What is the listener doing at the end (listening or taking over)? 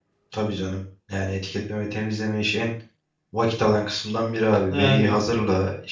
listening